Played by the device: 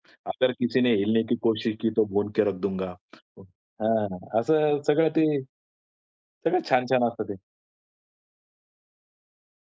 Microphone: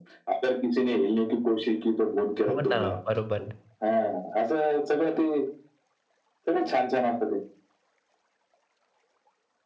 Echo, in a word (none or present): present